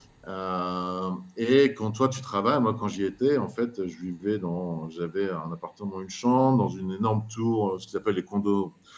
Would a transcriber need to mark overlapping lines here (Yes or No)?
No